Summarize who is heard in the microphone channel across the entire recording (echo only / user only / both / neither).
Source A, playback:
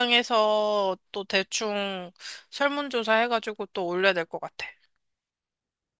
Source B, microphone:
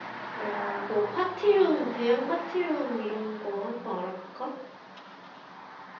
user only